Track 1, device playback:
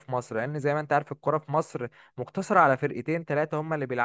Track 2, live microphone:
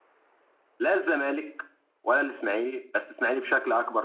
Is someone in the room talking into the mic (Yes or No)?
Yes